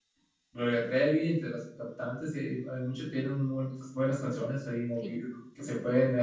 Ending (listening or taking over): listening